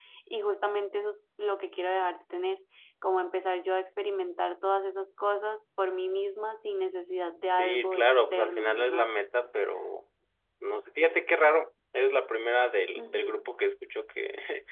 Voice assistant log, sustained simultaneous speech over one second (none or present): present